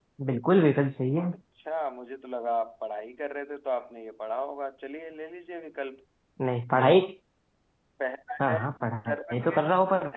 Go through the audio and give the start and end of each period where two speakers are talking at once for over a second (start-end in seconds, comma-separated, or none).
8.5-9.7